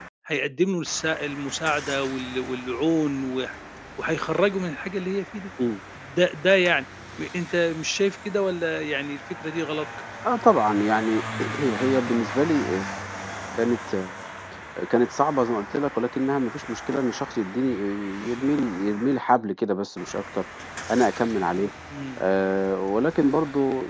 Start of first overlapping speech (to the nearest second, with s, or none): none